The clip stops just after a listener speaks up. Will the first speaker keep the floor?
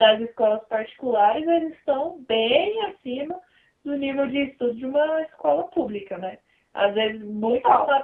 Yes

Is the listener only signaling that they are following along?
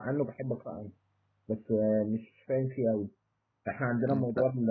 Yes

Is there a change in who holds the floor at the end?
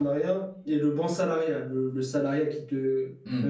Yes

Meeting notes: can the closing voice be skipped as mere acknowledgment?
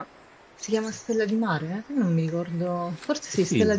No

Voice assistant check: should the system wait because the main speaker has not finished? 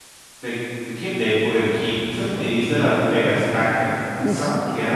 Yes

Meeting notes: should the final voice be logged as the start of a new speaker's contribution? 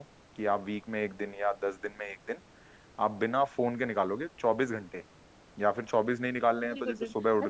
Yes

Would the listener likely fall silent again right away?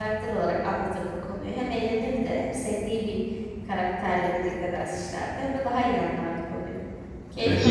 No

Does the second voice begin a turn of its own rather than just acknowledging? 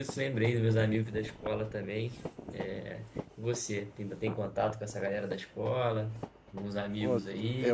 Yes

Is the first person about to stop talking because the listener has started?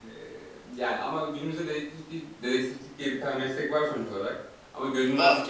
No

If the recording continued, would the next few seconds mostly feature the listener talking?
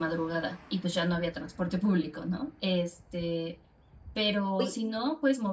No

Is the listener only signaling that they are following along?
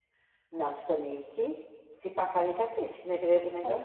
No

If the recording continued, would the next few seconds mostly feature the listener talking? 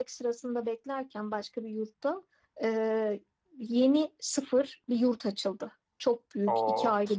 No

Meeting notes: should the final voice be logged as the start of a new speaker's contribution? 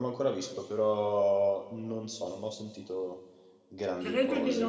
Yes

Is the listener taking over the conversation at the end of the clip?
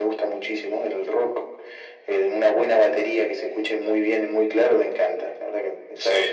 Yes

